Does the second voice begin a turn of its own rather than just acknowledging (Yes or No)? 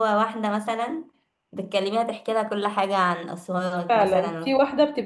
Yes